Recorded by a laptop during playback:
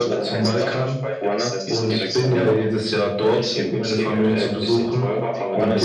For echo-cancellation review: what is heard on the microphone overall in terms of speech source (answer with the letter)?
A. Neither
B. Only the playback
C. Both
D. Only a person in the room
C